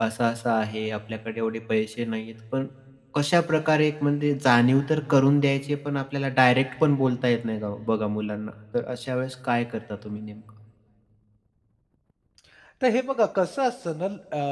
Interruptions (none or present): none